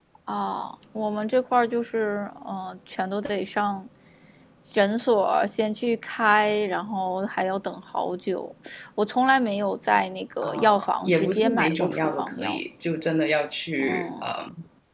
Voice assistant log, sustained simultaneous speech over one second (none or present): present